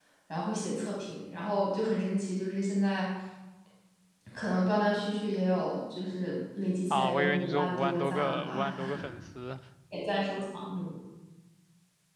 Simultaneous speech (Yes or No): Yes